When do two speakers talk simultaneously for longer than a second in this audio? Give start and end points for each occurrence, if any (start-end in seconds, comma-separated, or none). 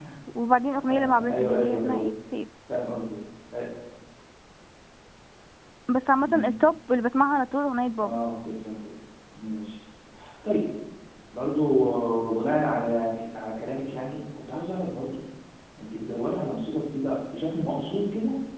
0.9-2.1